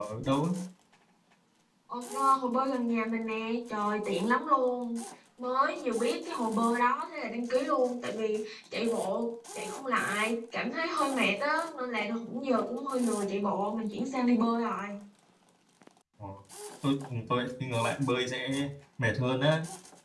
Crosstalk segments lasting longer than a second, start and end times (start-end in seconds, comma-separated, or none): none